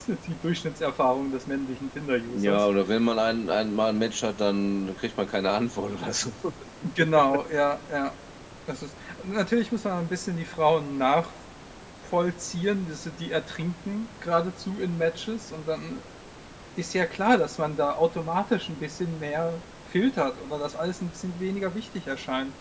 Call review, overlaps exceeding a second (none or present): none